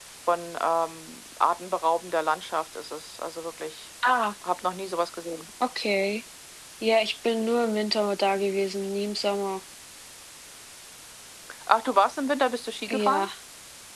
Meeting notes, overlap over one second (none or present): none